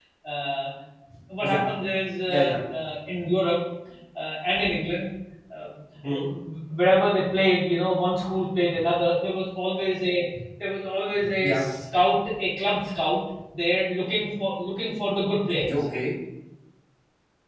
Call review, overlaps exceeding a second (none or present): none